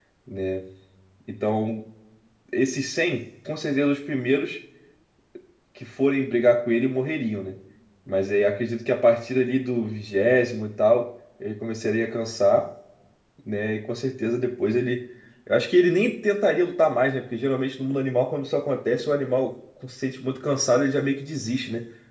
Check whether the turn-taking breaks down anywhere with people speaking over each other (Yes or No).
No